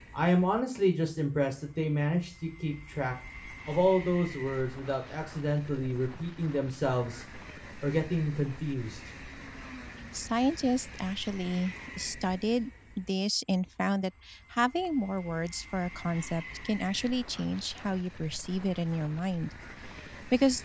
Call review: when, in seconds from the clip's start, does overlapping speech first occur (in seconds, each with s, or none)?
none